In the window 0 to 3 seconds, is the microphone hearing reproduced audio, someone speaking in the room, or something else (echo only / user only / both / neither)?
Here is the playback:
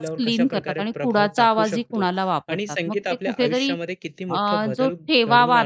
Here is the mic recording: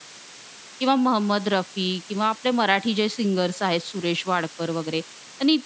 user only